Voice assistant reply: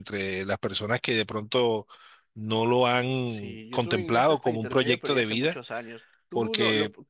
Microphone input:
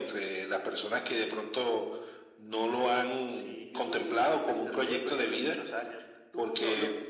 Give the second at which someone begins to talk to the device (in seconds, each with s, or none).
none